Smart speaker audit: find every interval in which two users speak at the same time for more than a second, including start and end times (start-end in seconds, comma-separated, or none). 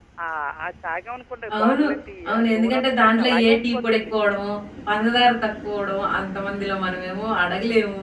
2.3-4.1